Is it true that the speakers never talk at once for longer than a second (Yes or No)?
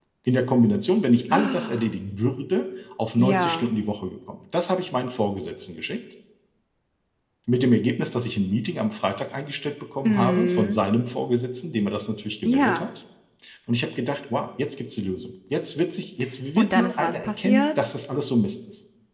No